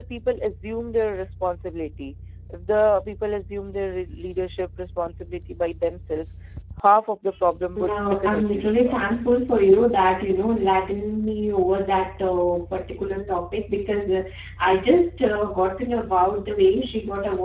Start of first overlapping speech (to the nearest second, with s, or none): 8 s